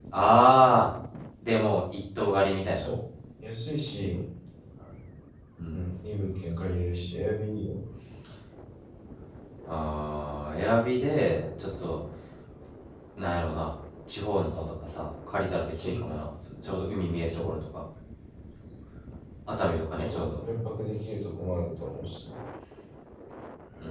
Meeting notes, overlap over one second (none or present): none